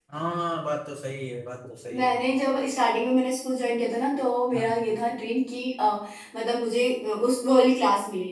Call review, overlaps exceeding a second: none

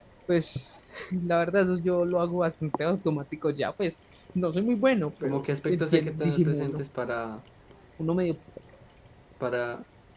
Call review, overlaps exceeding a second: present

